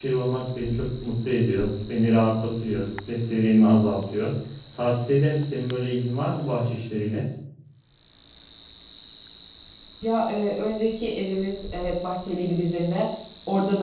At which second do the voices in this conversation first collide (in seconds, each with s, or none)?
none